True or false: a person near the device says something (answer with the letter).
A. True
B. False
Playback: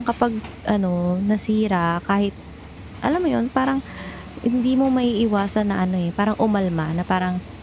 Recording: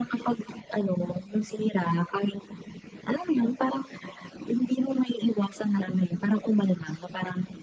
B